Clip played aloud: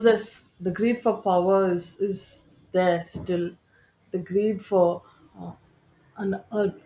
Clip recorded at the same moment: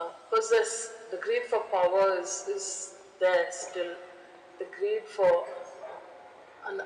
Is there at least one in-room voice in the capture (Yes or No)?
No